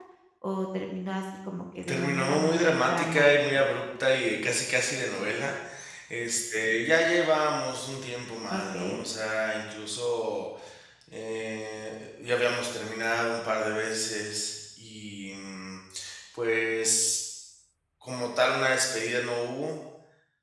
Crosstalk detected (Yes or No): Yes